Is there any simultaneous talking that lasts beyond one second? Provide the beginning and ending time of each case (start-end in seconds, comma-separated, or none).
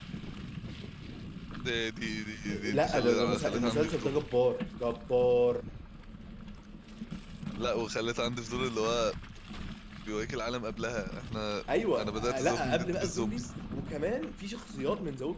2.5-4.2, 12.0-13.5